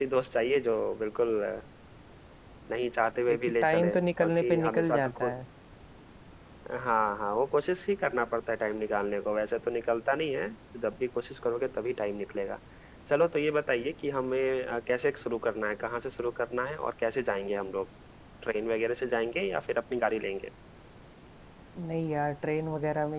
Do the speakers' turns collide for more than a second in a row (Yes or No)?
Yes